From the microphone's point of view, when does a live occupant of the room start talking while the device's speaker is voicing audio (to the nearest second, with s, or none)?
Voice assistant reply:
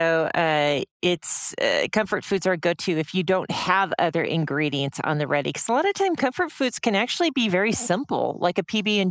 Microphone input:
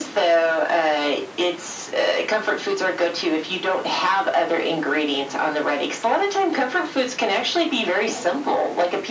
none